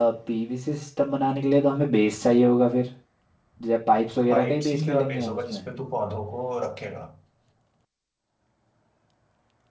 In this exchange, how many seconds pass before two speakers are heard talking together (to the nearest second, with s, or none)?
4 s